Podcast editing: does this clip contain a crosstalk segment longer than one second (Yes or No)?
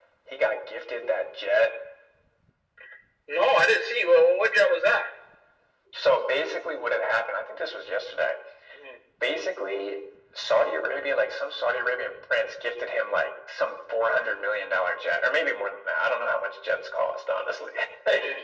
No